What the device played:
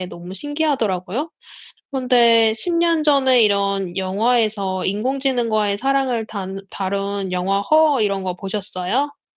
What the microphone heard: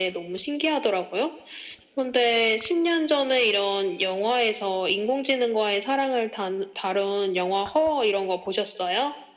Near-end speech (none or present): none